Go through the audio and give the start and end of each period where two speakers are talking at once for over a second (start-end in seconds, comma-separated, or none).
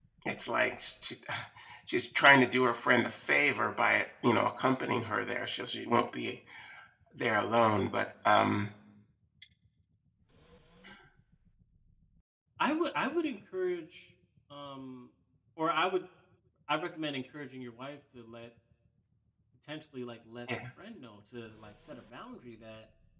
none